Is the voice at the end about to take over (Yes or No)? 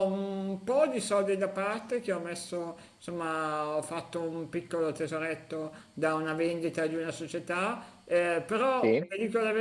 No